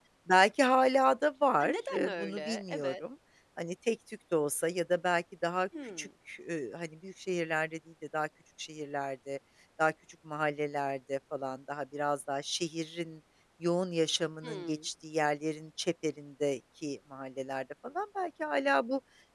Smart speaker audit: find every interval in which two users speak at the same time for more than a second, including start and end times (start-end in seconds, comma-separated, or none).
1.6-2.9